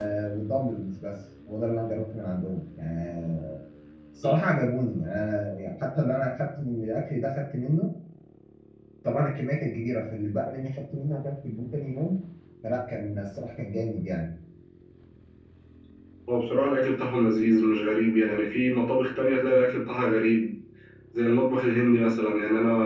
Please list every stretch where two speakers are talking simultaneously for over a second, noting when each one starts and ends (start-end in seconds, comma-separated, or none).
none